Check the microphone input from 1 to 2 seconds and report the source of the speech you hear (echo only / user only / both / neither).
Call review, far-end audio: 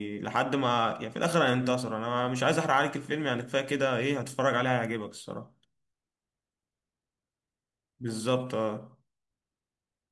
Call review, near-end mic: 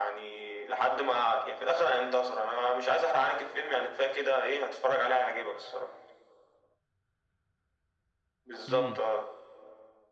echo only